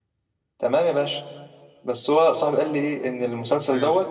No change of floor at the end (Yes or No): Yes